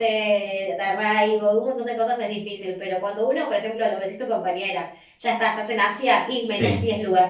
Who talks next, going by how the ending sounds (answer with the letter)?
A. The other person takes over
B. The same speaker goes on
B